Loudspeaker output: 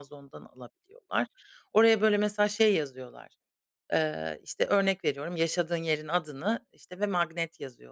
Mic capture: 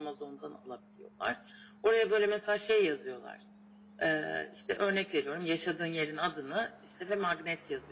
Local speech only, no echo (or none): none